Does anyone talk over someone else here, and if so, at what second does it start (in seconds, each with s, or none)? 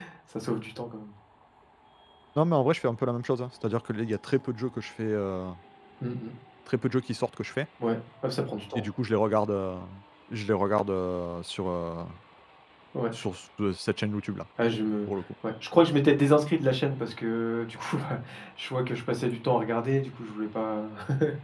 none